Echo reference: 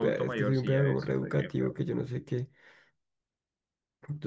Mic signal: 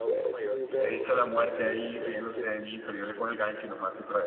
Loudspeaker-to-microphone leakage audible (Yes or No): Yes